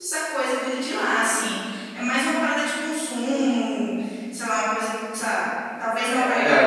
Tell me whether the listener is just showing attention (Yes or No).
Yes